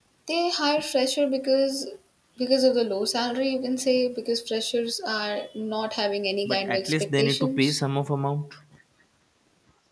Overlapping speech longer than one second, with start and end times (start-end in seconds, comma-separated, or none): 6.4-7.8